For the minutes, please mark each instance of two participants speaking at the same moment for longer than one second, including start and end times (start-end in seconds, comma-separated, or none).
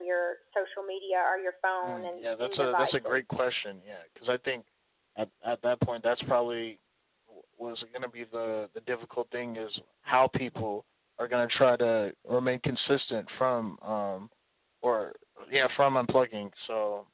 1.8-3.2